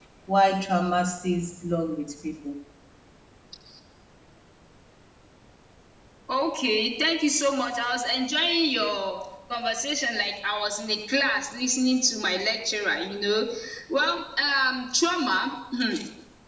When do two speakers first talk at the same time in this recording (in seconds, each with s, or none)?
none